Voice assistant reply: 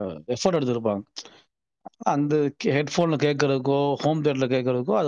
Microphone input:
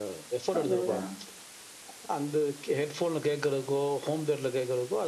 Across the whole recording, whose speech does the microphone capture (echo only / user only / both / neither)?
both